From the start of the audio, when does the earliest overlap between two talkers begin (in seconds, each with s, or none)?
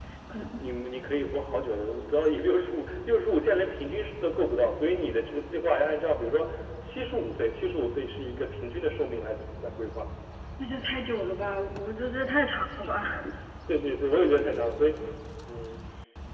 none